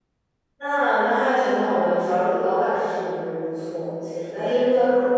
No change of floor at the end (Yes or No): Yes